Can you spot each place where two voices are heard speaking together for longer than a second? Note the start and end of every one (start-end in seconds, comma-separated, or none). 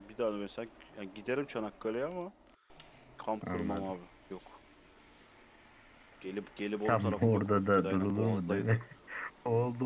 6.8-8.8